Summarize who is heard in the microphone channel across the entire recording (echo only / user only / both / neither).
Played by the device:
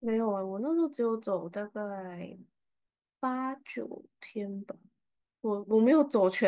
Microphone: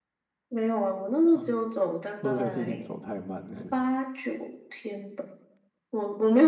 both